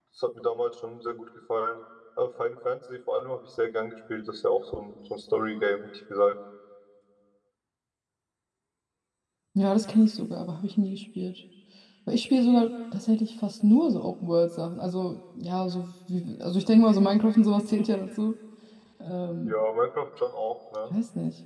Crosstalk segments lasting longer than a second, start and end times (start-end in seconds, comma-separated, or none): none